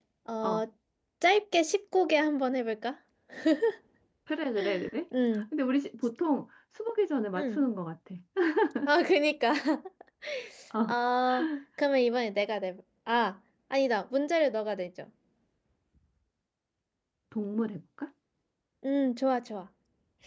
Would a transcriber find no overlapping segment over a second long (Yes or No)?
Yes